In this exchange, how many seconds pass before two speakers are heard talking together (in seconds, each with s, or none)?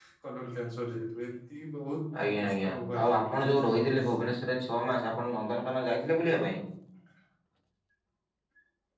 2.1 s